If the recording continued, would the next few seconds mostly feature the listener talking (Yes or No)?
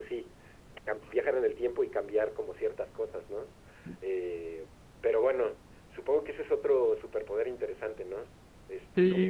Yes